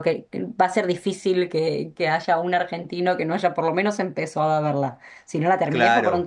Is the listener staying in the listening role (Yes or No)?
Yes